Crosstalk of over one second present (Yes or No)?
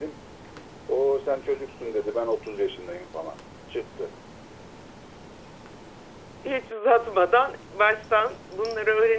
No